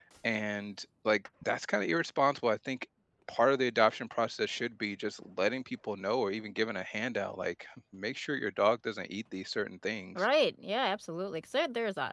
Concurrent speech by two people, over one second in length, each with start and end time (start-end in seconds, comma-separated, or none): none